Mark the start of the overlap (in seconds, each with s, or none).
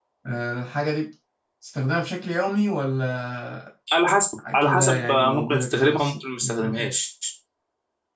4.6 s